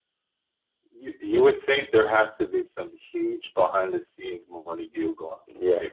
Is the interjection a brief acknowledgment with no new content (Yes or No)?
No